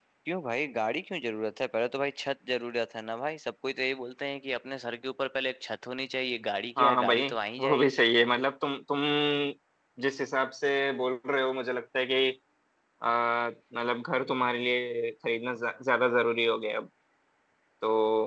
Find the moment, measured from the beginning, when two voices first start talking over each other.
7 s

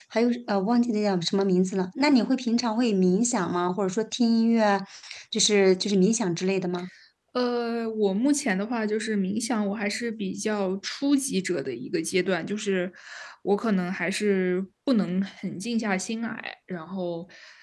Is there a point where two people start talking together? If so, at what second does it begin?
none

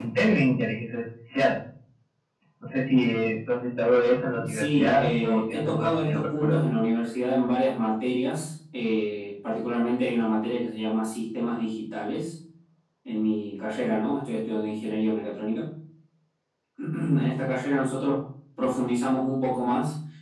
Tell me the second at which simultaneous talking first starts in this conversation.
4 s

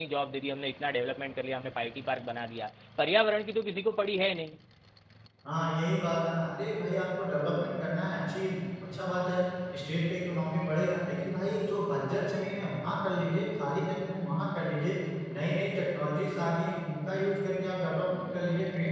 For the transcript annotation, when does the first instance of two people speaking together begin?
none

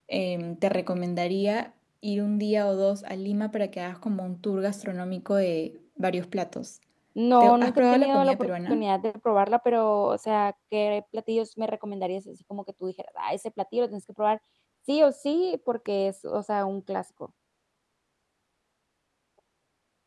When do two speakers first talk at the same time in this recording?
7 s

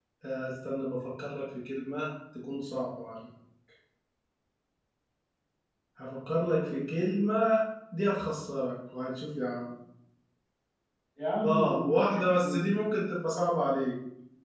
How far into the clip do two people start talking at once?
11 s

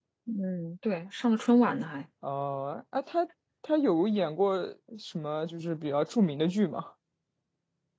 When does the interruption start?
none

